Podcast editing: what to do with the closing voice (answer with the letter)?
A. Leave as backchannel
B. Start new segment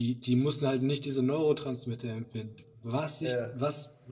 A